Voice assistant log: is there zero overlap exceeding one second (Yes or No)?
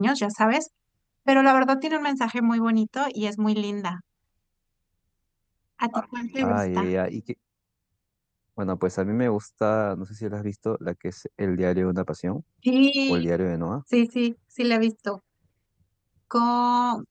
Yes